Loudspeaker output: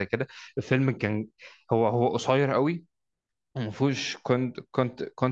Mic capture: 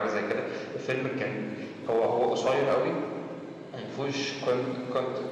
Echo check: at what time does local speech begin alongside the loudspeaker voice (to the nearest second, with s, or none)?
none